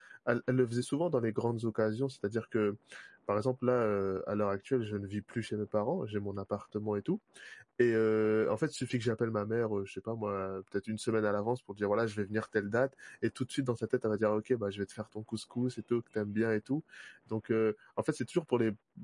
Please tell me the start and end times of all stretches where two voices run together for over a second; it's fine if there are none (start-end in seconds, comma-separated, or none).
none